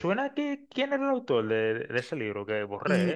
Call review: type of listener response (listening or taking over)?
taking over